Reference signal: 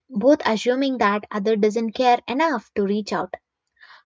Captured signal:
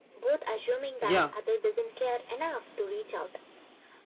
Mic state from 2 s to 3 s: echo only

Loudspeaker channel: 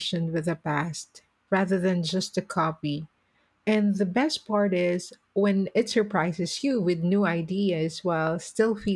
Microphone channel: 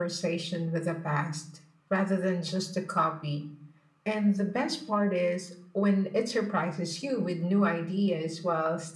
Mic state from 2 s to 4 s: echo only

